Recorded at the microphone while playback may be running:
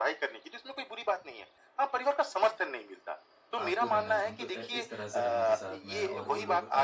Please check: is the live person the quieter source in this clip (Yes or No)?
Yes